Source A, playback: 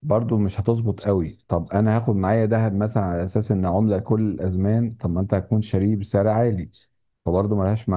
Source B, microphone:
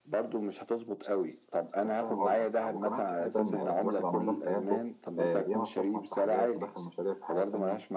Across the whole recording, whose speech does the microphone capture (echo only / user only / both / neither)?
both